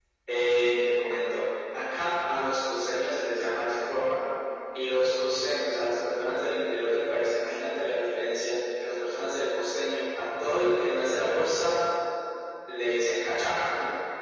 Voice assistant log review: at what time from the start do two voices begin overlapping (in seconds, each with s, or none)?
none